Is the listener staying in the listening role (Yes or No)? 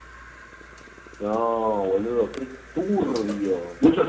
No